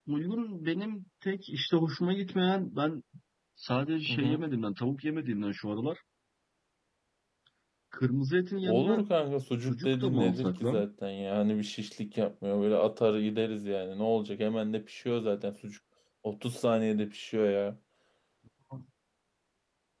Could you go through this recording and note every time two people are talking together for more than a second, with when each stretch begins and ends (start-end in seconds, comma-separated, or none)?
9.6-10.8